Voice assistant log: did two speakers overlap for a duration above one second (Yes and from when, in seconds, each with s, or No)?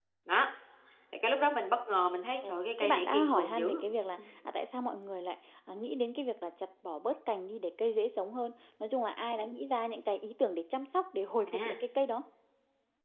Yes, from 2.5 s